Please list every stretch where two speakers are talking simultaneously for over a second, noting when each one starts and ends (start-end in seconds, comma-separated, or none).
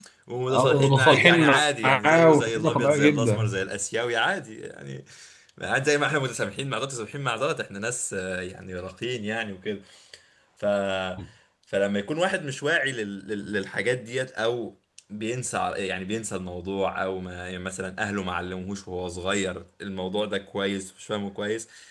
0.5-3.5